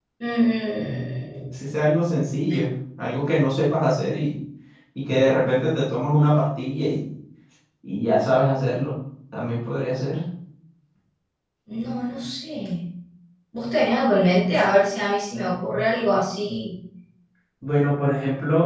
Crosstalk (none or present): none